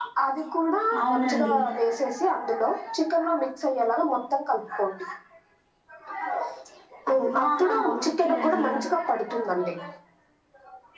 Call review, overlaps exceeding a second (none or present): present